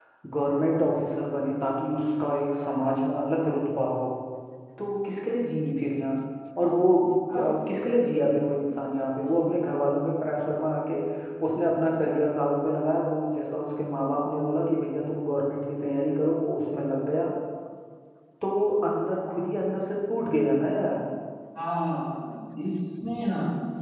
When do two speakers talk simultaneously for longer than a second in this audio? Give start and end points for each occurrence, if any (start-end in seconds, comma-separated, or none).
none